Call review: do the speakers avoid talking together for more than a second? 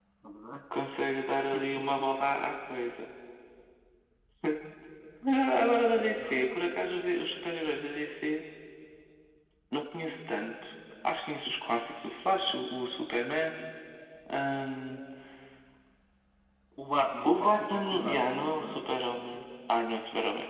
No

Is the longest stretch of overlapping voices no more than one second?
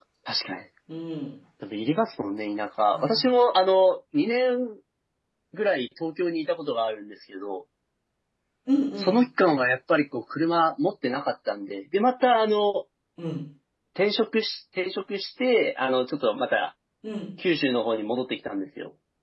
Yes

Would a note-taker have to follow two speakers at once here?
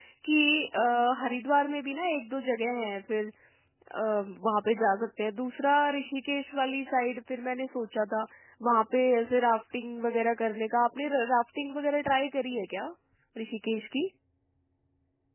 No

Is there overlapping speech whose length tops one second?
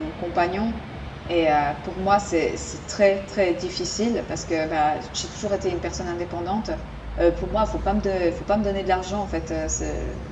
No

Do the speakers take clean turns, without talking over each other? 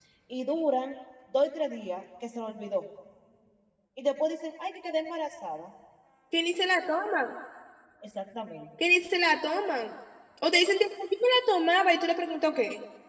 Yes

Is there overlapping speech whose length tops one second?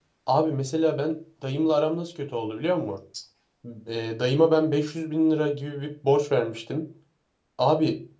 No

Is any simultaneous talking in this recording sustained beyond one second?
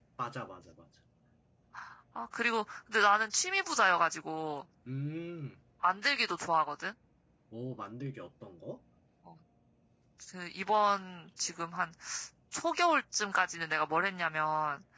No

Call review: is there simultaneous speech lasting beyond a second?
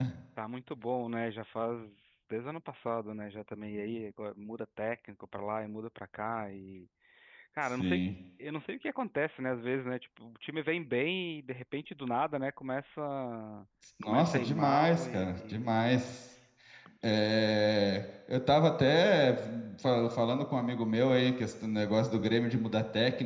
Yes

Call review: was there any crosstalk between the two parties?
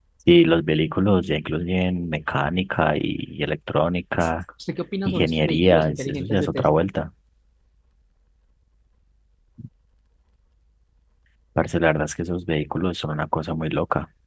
Yes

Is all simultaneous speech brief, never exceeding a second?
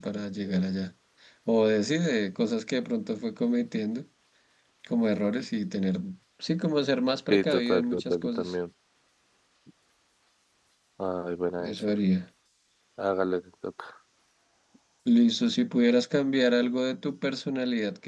No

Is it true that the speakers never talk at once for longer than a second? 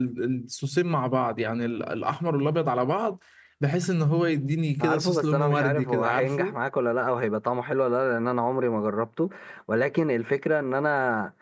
No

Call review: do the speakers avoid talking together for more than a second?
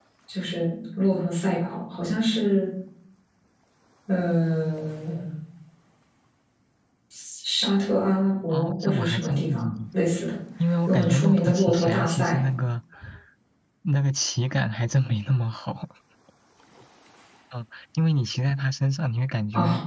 No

